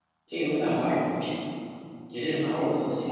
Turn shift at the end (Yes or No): No